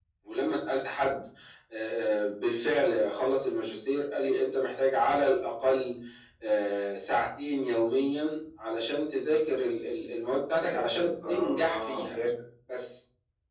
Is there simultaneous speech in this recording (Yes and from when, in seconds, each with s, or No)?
Yes, from 10.6 s